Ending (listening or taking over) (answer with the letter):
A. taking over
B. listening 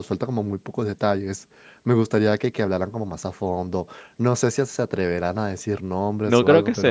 A